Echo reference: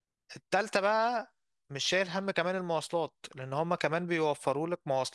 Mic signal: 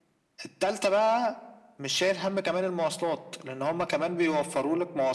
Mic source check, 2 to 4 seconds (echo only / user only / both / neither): echo only